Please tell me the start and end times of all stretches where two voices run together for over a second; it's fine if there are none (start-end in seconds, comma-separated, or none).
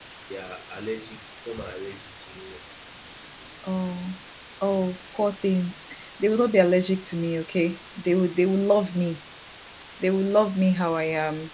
none